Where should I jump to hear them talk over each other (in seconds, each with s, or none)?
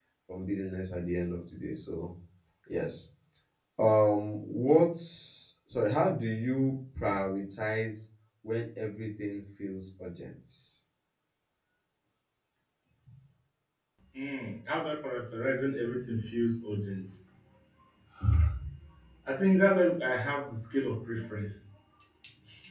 none